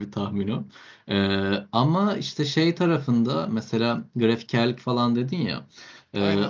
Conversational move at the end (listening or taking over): listening